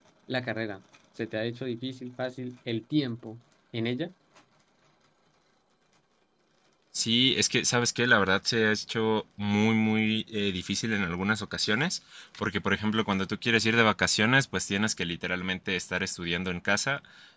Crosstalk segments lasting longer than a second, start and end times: none

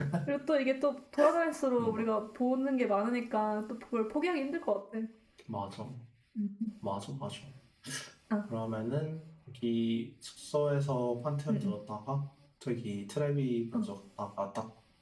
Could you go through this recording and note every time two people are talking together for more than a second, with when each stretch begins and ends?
none

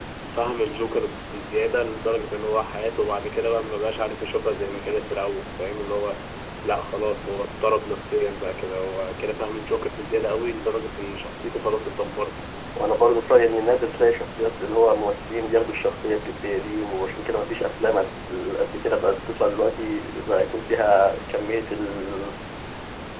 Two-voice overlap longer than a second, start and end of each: none

